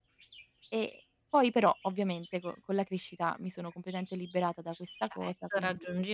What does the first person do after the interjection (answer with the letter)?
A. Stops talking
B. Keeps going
A